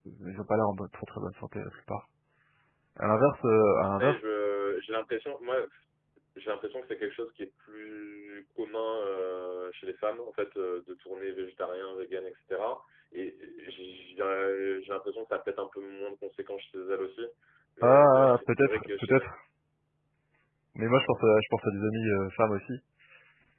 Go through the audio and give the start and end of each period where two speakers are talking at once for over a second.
17.8-19.3

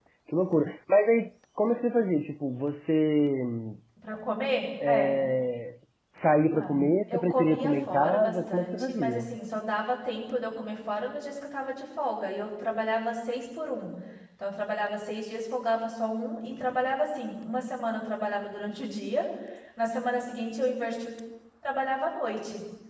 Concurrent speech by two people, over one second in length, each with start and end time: 6.5-9.3

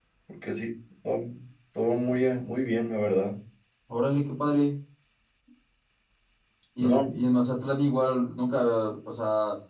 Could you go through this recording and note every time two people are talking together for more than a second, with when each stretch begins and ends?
none

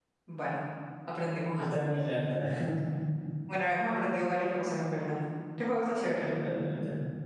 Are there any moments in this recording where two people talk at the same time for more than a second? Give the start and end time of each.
none

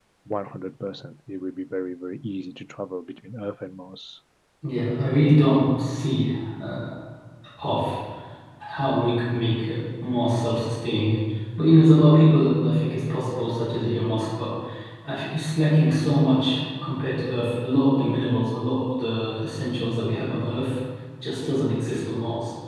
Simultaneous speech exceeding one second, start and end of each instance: none

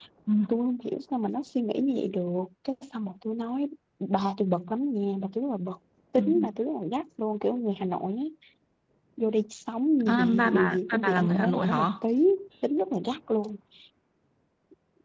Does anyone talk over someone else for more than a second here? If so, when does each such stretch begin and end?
10.1-11.8

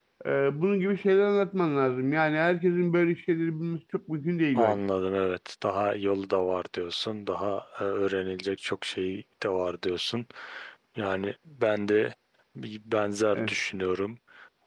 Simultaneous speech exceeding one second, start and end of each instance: none

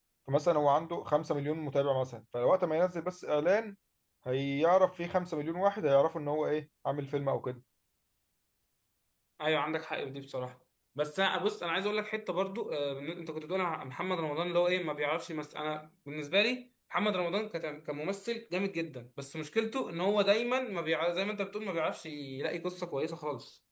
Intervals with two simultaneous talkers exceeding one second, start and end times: none

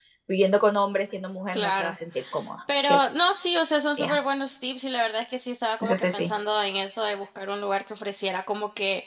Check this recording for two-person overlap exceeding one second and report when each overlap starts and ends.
none

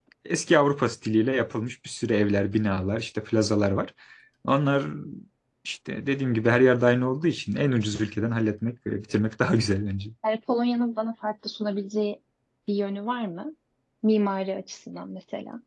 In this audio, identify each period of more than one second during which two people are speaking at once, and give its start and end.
none

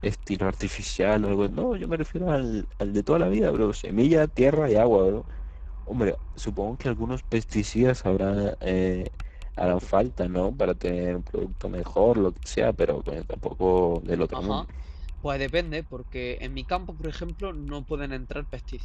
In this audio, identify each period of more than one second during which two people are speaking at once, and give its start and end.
none

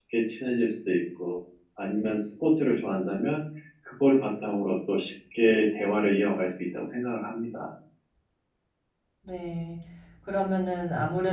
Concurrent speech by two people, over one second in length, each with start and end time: none

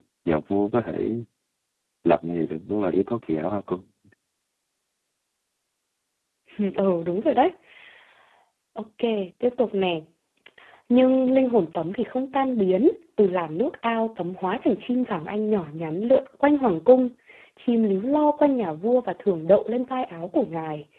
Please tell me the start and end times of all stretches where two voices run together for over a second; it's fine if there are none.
none

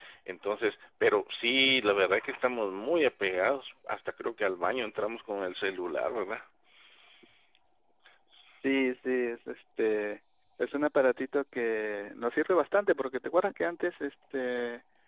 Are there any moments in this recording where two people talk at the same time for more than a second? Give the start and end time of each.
none

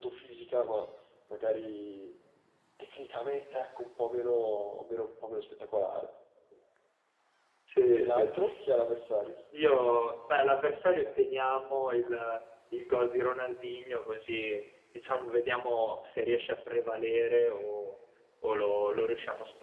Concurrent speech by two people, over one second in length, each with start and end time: none

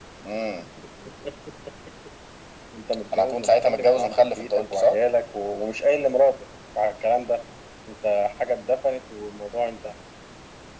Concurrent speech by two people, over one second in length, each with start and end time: 3.1-5.0

